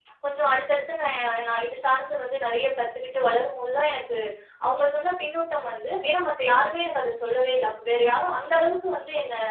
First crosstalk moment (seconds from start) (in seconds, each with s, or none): none